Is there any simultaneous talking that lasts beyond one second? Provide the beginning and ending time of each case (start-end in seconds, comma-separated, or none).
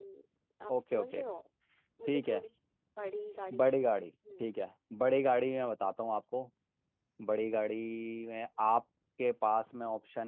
none